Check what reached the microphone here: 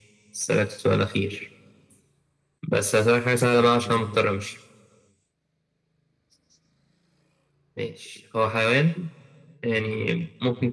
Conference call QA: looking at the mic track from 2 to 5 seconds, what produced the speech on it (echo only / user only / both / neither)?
echo only